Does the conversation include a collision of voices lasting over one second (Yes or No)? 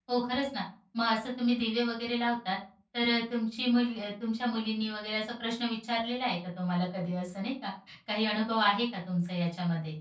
No